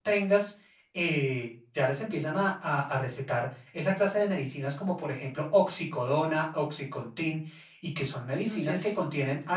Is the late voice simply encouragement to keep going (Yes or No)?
Yes